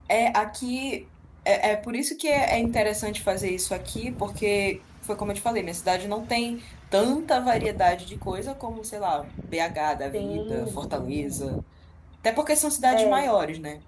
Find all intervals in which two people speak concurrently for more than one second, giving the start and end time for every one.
10.1-11.4

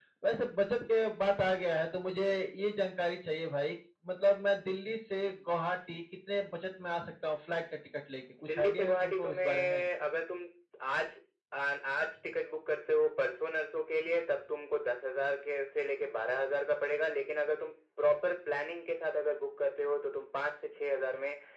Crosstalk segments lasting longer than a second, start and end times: 8.5-9.8

